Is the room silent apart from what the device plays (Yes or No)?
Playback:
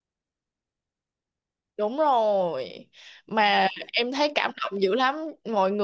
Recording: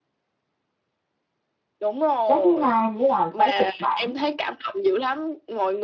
No